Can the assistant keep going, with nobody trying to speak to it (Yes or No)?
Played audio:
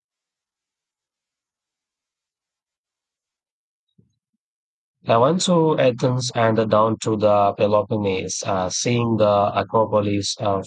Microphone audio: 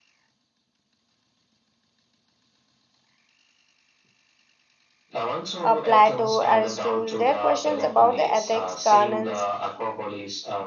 No